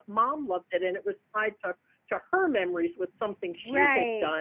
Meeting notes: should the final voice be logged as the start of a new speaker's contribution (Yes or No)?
No